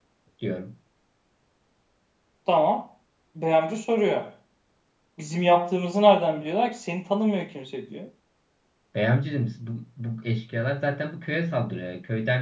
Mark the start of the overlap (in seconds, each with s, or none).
none